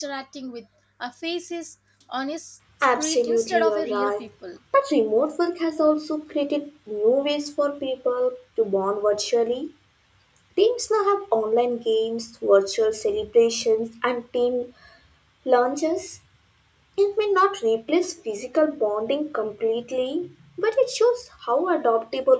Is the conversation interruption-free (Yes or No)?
No